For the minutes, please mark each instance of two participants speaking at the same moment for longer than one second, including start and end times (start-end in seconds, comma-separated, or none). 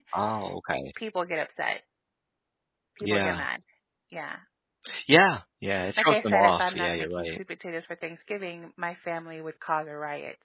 6.0-7.4